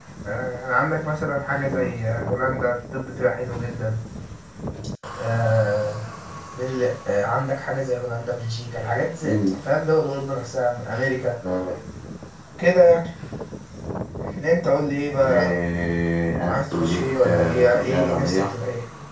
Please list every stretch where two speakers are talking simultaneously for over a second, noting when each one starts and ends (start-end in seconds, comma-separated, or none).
16.5-18.5